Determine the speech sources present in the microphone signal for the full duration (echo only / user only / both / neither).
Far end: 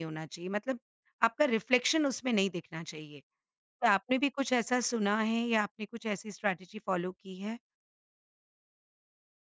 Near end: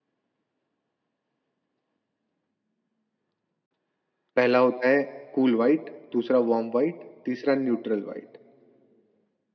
user only